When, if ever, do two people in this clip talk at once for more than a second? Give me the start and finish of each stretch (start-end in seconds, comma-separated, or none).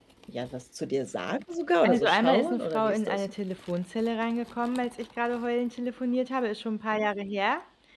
1.8-3.2